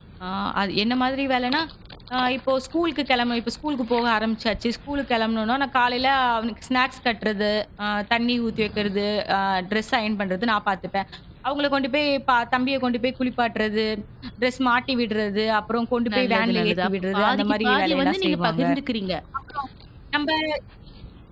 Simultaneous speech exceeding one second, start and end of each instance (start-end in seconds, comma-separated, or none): 16.1-18.6